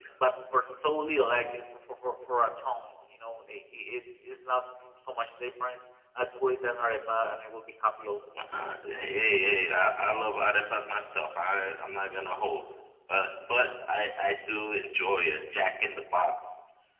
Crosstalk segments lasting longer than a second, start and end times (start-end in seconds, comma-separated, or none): none